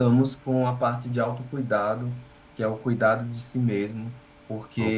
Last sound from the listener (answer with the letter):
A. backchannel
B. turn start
A